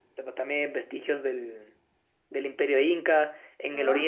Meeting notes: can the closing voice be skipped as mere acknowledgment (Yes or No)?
Yes